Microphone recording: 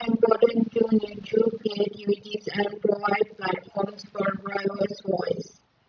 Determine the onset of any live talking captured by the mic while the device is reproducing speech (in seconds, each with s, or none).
none